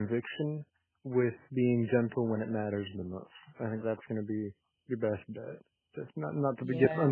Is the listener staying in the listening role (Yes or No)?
Yes